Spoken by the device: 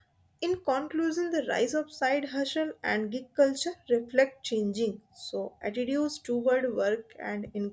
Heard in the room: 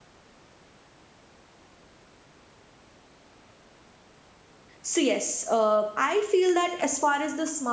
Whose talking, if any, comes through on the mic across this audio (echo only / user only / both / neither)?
user only